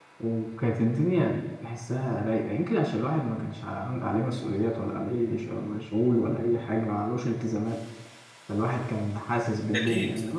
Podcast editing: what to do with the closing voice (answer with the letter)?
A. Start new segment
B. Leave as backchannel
B